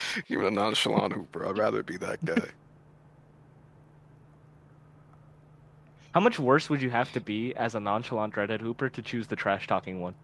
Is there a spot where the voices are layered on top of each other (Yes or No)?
No